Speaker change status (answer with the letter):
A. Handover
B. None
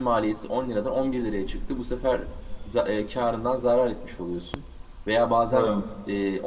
B